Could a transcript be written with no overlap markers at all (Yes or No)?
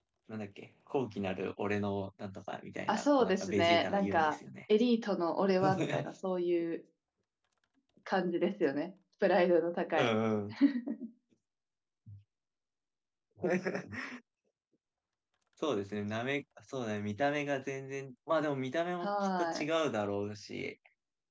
No